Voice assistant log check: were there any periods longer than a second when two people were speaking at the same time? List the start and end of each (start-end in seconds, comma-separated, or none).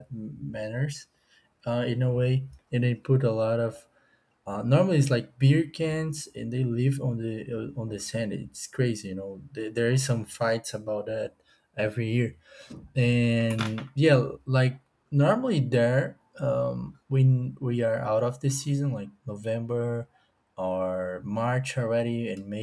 none